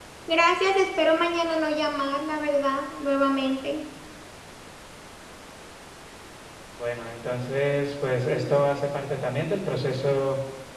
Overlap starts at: none

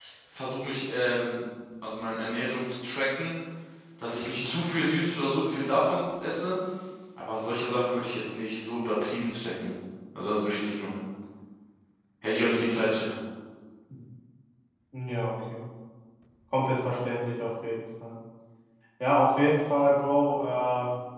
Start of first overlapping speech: none

